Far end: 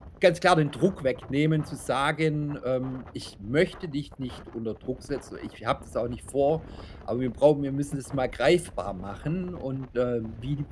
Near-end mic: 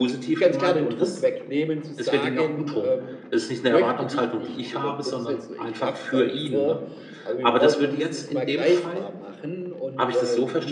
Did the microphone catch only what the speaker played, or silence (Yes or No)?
No